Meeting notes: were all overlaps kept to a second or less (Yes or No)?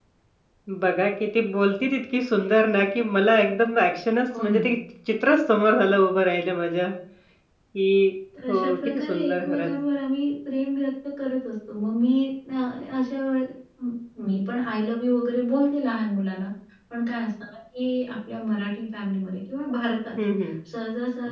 No